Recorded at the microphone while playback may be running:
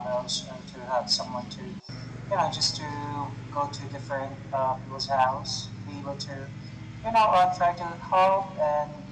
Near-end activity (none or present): none